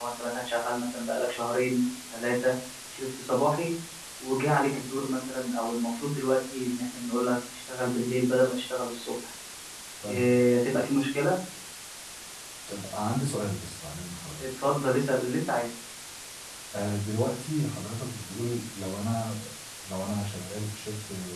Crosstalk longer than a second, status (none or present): none